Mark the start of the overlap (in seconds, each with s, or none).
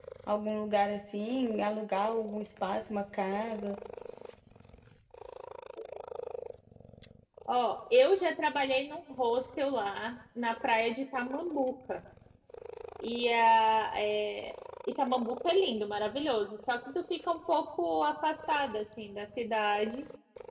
none